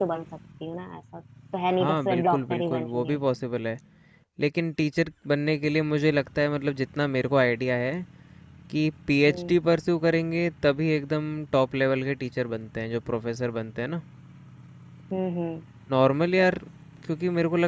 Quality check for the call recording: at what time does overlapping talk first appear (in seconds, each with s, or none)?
1.8 s